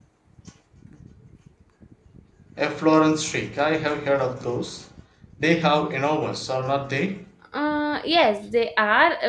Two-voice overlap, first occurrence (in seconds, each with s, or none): none